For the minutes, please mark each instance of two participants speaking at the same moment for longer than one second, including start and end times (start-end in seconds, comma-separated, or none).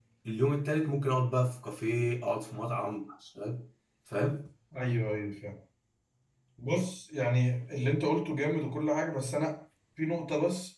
none